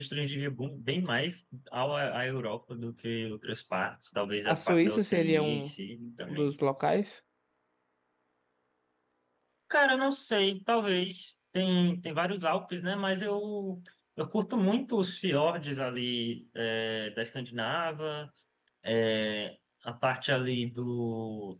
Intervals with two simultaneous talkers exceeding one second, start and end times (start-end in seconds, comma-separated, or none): 4.4-5.7